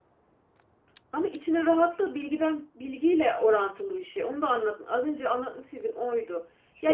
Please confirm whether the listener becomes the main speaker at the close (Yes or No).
Yes